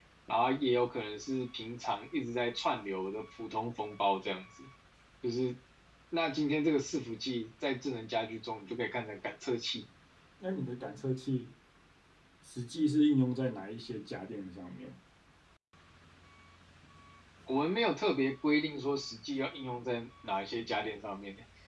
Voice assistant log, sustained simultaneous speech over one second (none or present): none